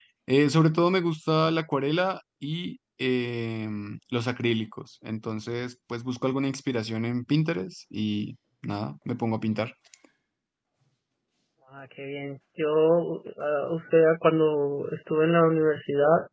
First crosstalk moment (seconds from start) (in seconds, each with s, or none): none